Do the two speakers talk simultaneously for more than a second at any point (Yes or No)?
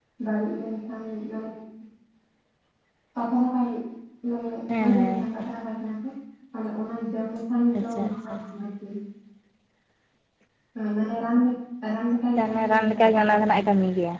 Yes